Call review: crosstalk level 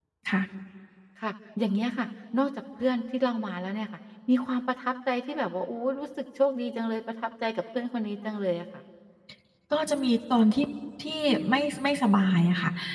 none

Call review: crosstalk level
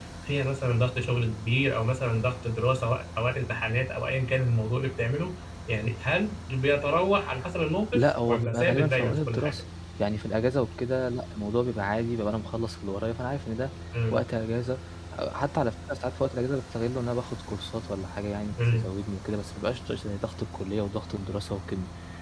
present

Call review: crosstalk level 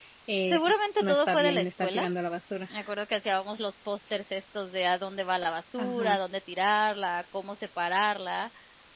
present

